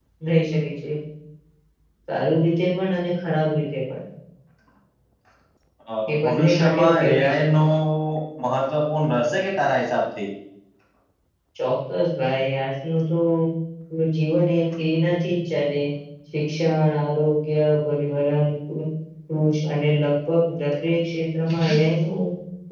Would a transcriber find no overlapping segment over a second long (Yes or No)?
No